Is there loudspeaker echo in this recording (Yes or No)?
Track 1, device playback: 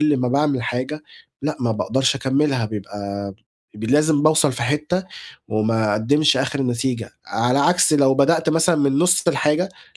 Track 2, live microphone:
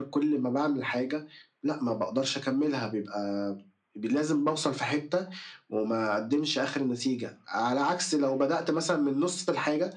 Yes